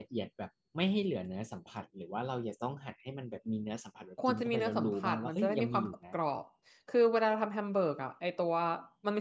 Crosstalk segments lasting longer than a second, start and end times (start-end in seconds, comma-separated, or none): 4.3-6.2